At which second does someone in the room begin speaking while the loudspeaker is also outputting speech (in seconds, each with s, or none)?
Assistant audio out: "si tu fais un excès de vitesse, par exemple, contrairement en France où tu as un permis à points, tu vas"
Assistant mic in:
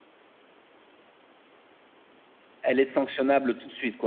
2.6 s